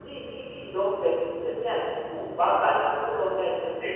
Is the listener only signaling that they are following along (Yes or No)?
Yes